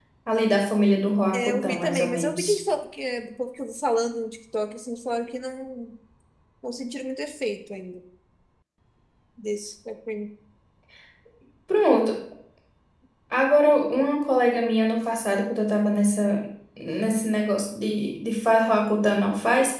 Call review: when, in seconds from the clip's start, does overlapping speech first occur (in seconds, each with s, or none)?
1.3 s